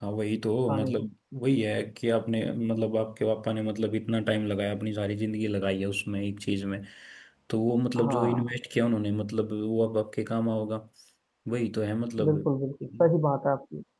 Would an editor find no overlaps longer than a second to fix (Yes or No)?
Yes